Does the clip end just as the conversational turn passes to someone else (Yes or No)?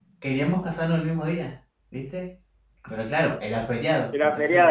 No